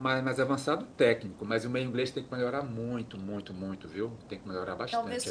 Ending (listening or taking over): taking over